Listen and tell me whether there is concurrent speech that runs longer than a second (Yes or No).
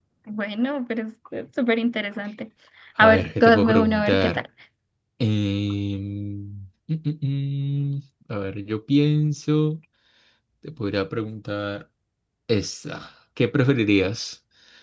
Yes